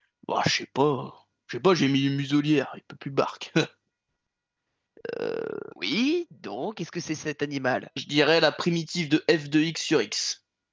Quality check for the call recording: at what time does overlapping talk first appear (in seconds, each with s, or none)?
none